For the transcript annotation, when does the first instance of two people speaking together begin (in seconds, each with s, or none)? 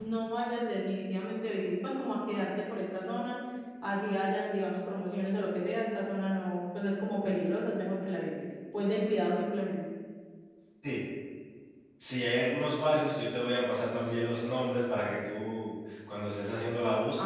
none